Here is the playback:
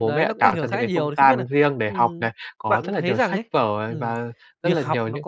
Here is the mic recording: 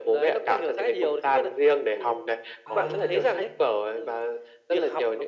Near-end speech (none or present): present